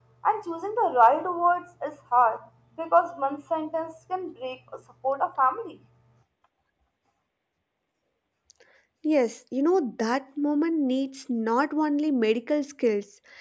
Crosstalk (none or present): none